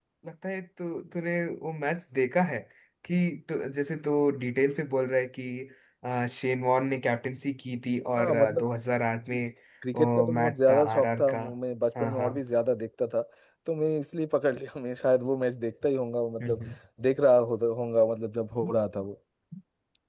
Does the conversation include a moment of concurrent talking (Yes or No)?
Yes